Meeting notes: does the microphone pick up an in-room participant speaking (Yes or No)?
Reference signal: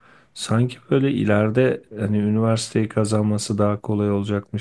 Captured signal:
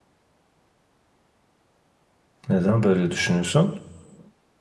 Yes